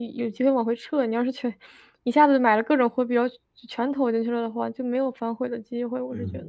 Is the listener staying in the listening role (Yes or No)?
No